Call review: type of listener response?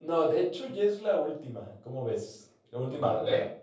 taking over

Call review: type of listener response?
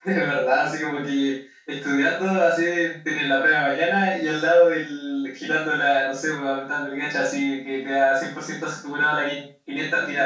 taking over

